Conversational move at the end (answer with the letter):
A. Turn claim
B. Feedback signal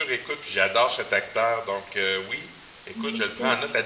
B